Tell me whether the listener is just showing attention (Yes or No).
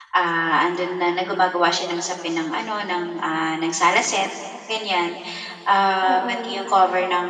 Yes